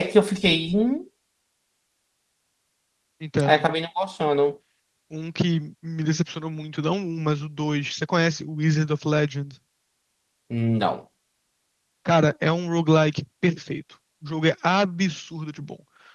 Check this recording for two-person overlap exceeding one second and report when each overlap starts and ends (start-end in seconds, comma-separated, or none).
none